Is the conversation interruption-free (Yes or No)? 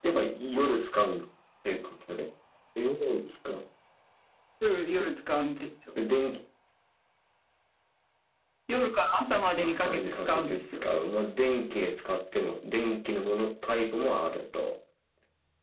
No